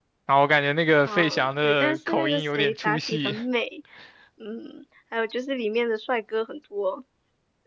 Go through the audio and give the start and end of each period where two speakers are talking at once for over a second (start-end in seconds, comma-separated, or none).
1.0-3.3